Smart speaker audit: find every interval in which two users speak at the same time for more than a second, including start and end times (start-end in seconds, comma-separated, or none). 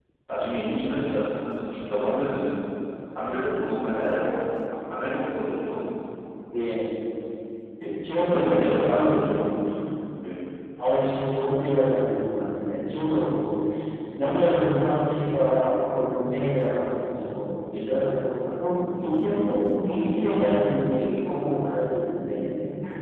8.2-9.4